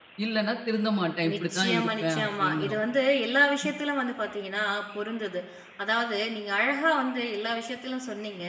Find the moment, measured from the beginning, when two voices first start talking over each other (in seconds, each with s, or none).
1.2 s